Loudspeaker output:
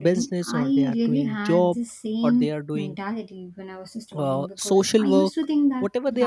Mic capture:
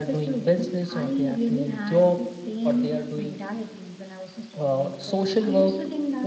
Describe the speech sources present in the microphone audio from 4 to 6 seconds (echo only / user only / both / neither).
echo only